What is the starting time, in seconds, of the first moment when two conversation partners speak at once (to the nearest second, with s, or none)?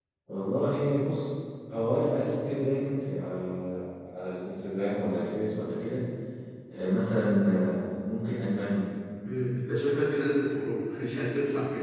none